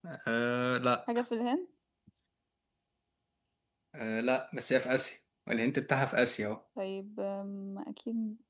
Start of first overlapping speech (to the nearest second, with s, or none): none